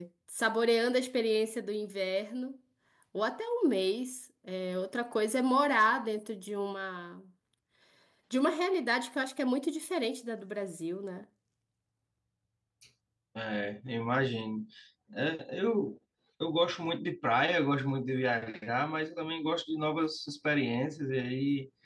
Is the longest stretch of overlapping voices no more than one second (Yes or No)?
Yes